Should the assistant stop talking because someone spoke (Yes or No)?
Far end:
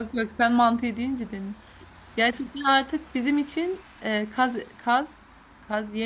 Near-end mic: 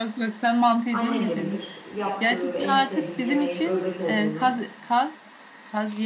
Yes